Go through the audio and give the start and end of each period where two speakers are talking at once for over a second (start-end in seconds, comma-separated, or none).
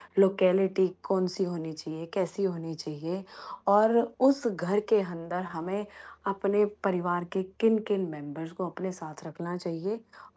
none